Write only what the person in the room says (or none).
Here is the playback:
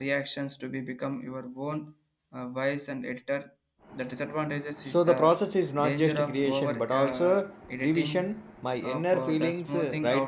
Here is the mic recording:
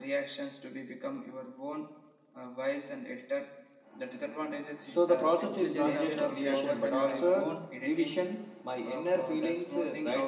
intelligence of uh, greater than my own